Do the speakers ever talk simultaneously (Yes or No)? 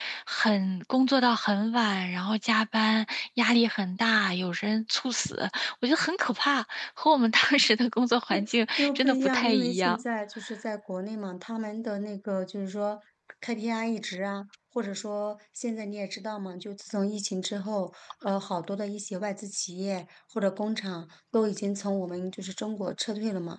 Yes